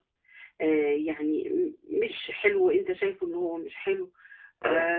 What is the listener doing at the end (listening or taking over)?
listening